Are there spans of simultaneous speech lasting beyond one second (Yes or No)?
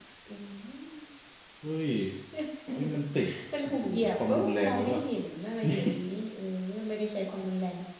Yes